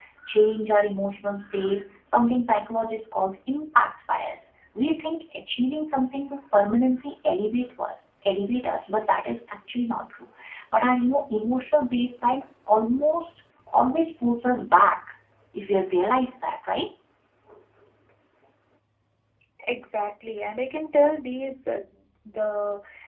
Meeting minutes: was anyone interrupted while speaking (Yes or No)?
No